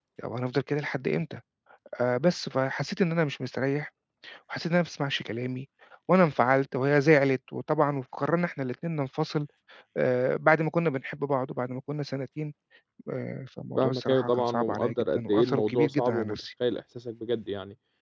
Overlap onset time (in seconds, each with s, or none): 13.8 s